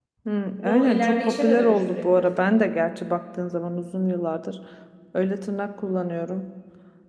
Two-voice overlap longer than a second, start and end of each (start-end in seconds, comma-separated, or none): 0.6-2.5